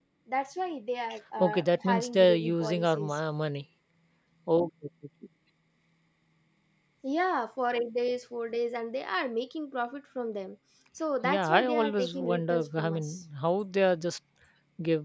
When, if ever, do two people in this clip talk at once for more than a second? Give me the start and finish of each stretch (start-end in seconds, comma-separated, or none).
1.4-3.2, 11.3-13.1